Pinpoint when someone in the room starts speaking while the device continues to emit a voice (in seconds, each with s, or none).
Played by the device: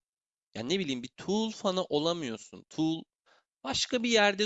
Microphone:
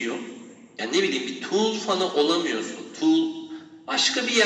none